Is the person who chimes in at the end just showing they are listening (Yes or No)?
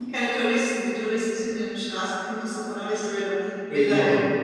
No